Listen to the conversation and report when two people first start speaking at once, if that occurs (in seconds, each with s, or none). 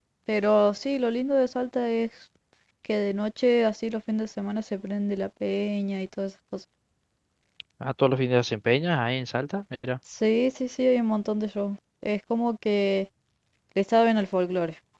none